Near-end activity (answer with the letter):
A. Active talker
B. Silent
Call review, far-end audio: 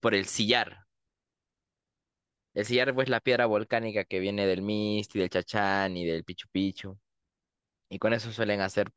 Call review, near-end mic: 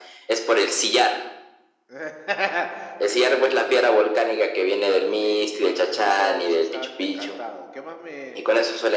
A